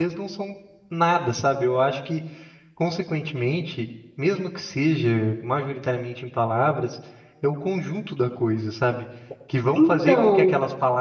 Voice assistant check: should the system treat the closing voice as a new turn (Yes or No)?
No